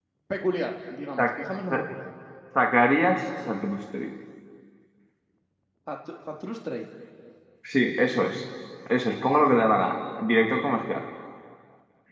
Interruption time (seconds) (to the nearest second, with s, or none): none